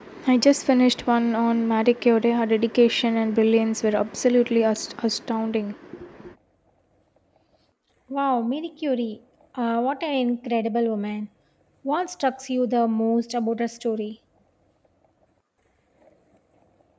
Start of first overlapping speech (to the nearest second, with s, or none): none